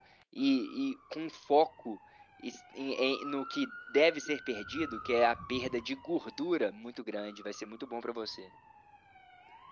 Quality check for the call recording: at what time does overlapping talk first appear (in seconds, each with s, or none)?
none